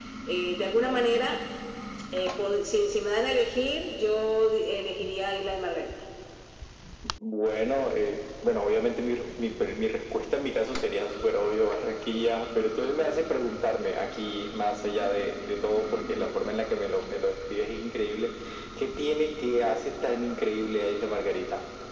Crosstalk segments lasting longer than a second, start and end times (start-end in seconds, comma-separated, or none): none